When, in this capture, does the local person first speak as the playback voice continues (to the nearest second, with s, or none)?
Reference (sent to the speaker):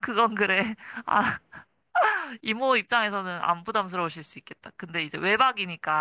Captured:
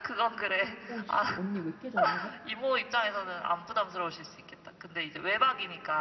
1 s